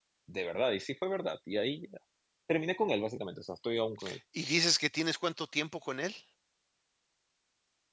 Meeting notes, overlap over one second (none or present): none